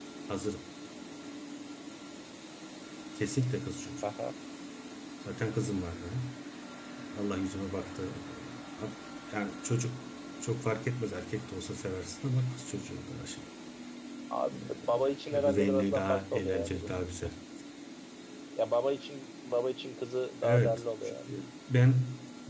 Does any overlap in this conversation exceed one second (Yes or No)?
Yes